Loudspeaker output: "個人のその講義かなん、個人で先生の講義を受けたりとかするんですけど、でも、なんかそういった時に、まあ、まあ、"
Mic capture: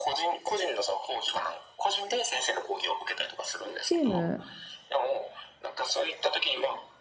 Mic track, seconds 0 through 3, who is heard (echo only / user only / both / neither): echo only